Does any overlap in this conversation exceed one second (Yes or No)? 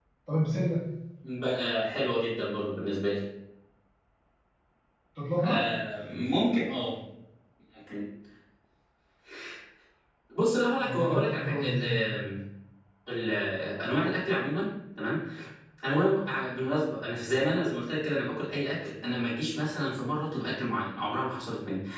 Yes